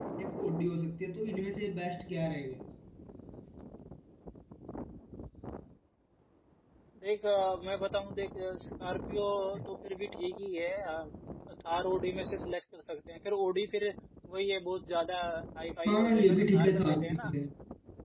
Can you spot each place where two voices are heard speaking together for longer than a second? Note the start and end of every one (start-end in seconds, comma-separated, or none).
15.9-17.3